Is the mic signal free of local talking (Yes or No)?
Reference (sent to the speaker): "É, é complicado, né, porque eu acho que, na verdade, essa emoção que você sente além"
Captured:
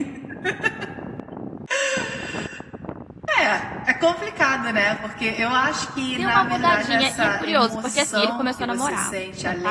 No